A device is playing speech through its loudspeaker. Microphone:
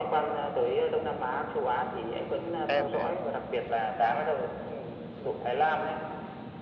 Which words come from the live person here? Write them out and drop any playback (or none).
Em thì em